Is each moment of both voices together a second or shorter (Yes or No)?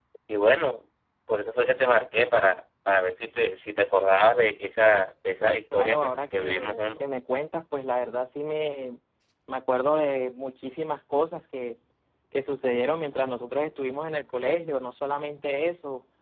No